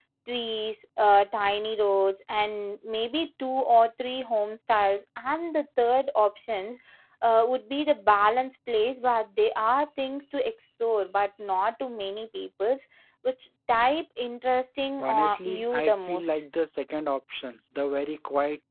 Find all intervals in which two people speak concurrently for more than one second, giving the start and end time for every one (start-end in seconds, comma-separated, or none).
15.0-16.5